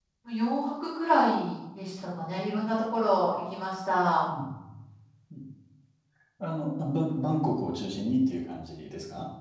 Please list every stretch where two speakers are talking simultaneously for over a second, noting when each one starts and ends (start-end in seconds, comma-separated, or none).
none